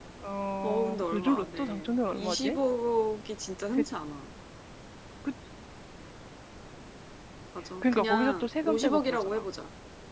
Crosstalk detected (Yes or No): Yes